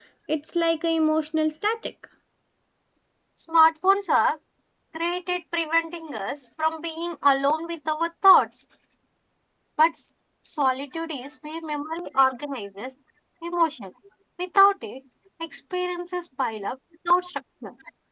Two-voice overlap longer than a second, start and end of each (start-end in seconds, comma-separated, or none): none